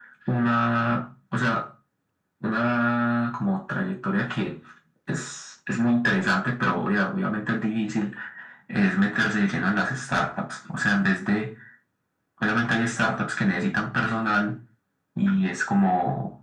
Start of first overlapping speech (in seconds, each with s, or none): none